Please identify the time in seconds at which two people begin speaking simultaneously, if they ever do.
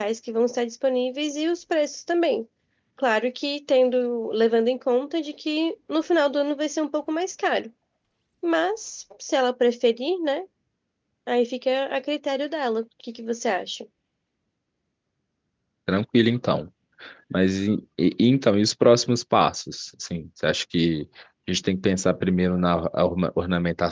none

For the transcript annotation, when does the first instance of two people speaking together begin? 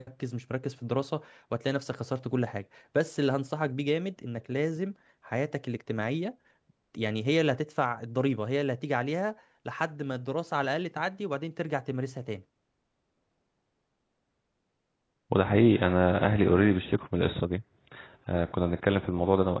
none

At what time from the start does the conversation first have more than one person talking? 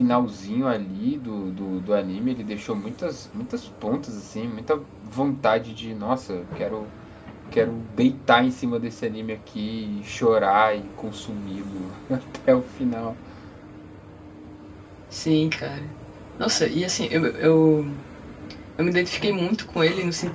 none

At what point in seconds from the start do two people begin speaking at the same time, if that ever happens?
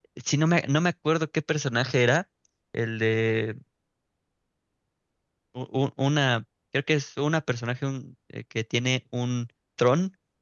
none

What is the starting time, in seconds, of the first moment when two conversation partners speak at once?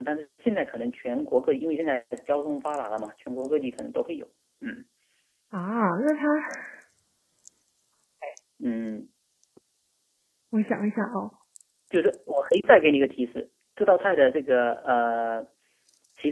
none

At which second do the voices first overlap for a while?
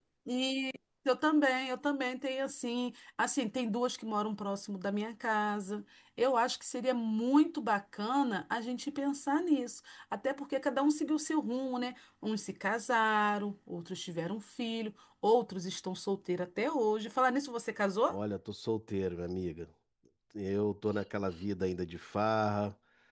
none

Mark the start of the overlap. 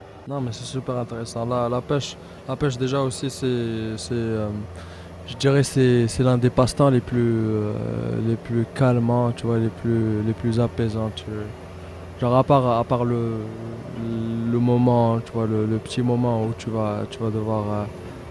none

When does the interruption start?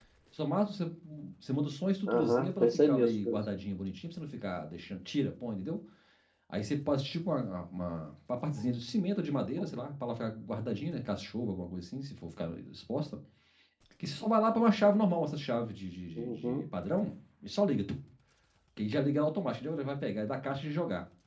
2 s

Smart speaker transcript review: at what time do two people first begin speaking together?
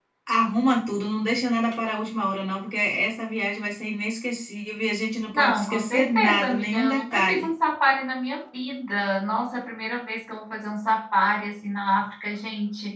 5 s

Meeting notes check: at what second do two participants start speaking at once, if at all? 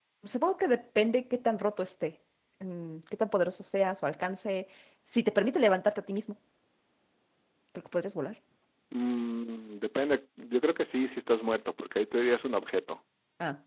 none

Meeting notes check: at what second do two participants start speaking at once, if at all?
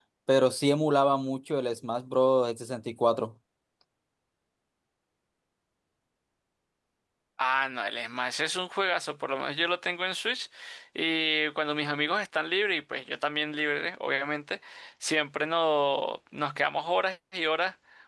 none

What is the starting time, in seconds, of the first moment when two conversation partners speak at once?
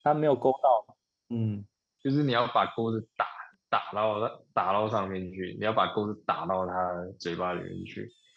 none

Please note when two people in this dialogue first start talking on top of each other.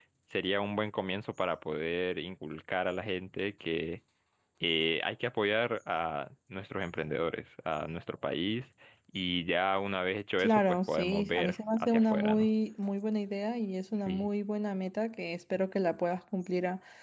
10 s

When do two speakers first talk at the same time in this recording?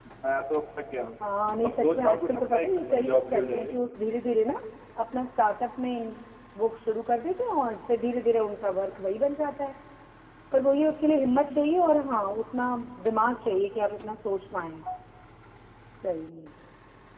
2 s

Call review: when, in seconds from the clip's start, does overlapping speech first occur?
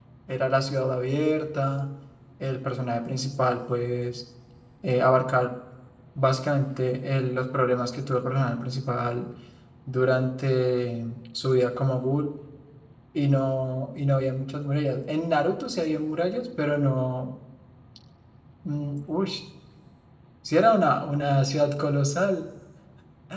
none

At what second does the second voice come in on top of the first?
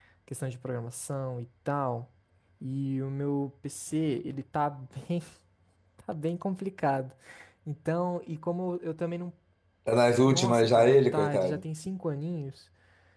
10 s

